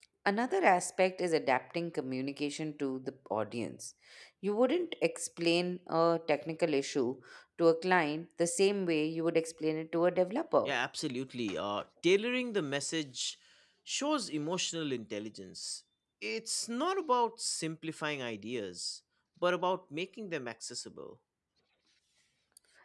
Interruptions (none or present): none